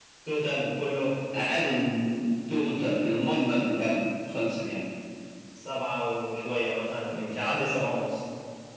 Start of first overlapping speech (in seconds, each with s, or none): none